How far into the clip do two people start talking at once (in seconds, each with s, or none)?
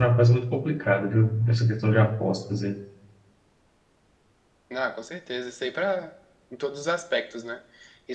none